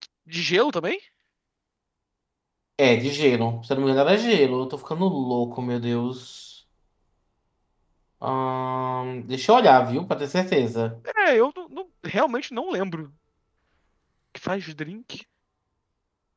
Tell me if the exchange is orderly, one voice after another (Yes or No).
Yes